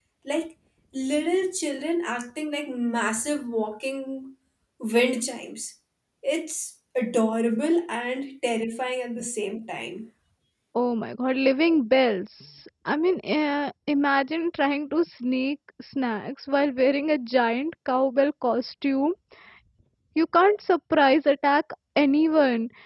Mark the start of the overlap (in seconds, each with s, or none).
none